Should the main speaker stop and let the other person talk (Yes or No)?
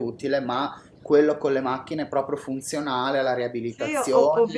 Yes